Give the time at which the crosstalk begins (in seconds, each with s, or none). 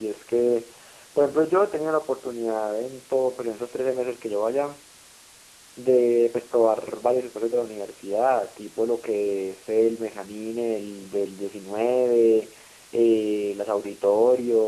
none